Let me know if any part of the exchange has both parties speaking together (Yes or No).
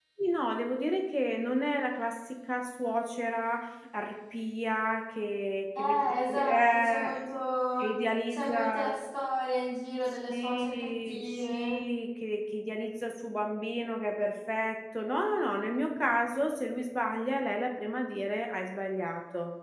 Yes